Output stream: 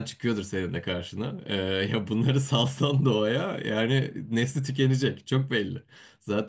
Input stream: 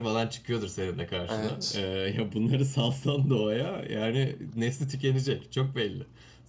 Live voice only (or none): Evet.